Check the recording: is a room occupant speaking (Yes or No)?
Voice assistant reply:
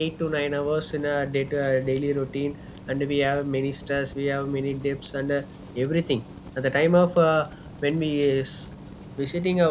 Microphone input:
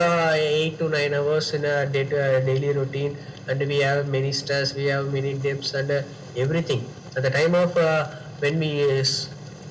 No